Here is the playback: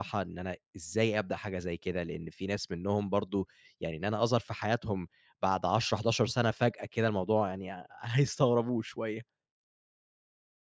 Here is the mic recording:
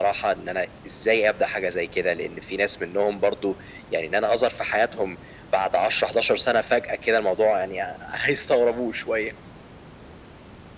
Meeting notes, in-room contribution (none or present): none